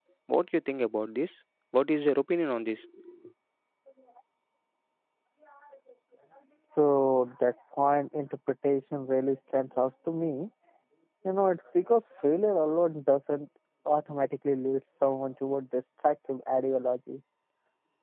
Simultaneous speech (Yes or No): No